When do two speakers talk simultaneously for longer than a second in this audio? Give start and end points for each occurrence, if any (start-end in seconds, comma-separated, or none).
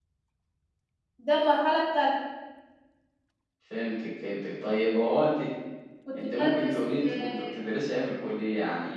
6.2-7.6